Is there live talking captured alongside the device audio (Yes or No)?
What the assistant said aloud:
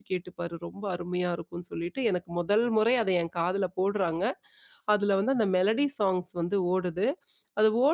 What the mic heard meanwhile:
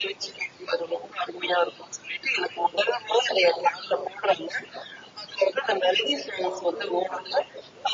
Yes